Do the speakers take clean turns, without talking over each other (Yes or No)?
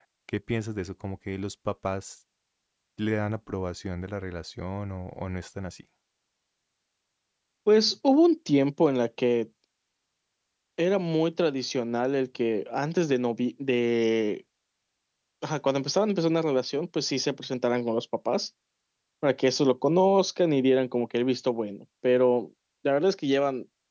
Yes